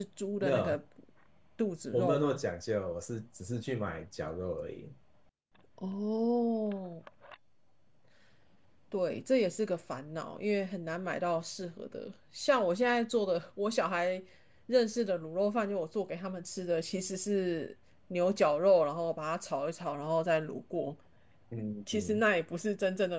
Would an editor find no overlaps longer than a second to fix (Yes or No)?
Yes